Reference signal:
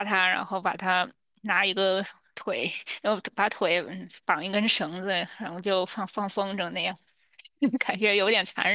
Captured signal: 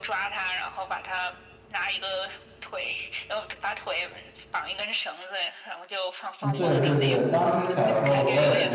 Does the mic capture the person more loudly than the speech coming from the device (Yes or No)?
Yes